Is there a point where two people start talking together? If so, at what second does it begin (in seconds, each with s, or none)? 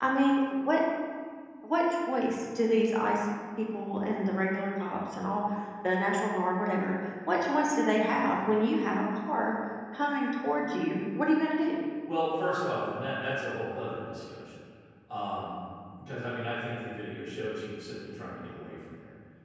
none